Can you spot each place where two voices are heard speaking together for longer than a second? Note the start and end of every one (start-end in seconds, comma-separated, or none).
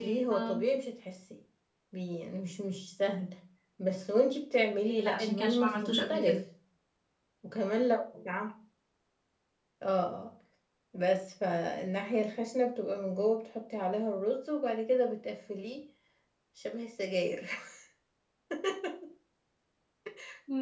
4.8-6.4